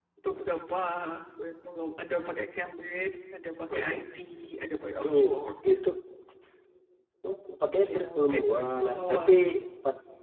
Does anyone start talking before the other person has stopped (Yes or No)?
Yes